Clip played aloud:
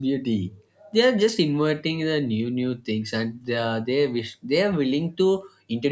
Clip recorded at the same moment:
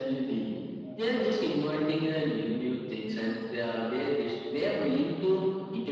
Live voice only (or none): none